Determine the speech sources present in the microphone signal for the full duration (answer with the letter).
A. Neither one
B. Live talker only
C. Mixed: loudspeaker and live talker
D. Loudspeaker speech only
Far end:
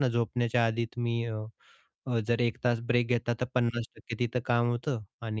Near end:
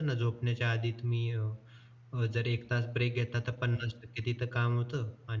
D